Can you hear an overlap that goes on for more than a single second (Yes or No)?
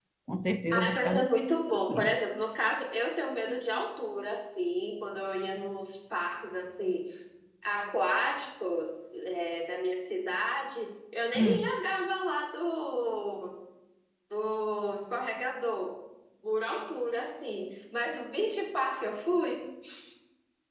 No